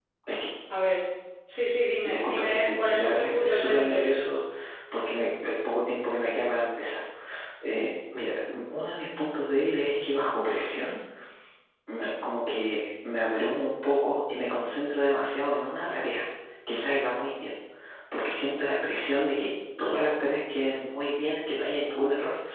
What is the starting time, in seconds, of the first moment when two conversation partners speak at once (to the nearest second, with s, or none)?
2 s